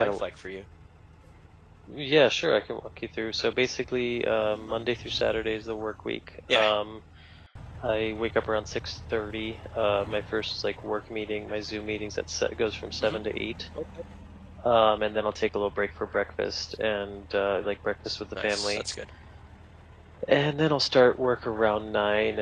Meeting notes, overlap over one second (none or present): none